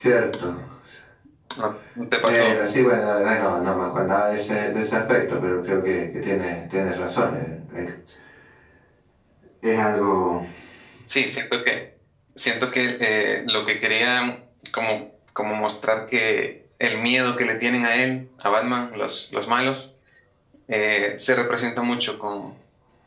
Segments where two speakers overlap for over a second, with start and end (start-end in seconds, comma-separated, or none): none